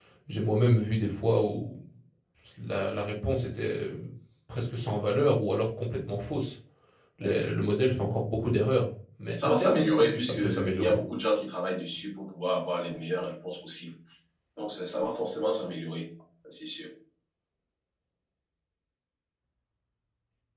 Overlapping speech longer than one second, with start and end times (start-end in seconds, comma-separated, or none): 9.4-10.9